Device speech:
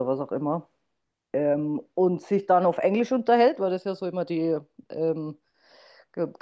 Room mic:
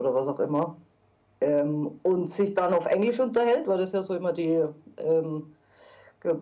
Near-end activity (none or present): none